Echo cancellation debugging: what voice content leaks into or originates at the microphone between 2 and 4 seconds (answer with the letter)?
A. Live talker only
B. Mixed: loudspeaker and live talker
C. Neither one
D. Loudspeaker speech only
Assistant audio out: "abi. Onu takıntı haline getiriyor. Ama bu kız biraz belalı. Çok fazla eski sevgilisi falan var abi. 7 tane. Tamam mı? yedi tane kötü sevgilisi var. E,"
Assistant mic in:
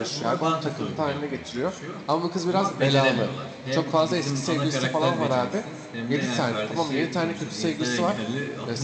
B